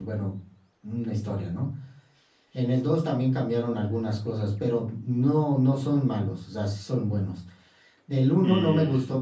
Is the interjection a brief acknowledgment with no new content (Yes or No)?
Yes